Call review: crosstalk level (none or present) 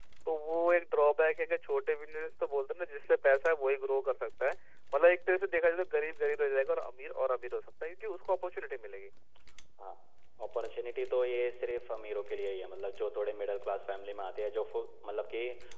none